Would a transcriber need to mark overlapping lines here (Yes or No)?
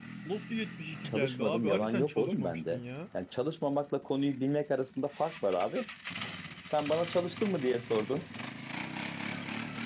Yes